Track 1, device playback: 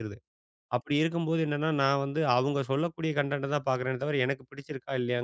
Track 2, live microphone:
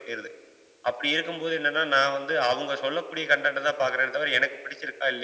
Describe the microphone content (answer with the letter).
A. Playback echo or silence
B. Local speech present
A